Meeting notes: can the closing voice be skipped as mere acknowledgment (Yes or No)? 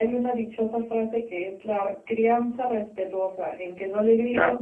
Yes